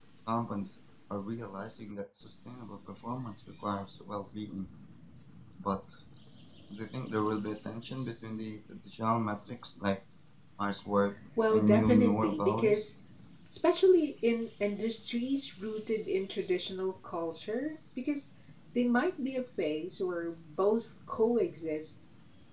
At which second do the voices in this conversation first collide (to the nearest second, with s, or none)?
11 s